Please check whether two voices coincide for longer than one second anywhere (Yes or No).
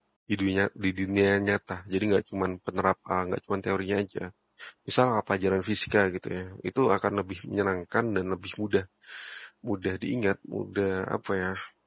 No